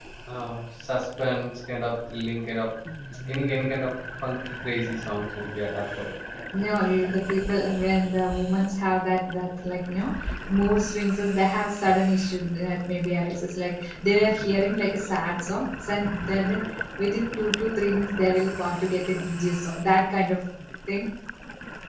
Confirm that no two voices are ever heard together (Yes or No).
Yes